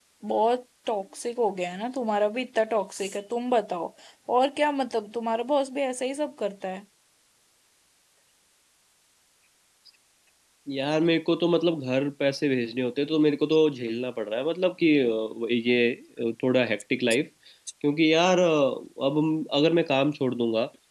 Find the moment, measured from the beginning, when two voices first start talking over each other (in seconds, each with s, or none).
none